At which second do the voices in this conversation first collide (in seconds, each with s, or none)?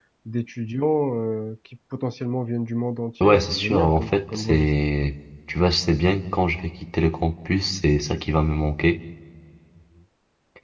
3.2 s